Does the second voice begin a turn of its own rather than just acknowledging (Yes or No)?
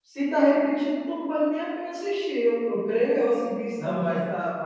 Yes